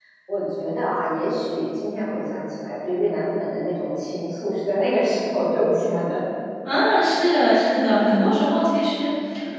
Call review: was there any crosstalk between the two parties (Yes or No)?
No